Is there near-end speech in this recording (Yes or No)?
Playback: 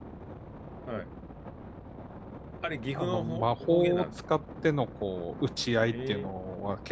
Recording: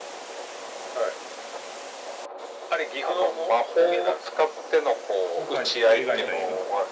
Yes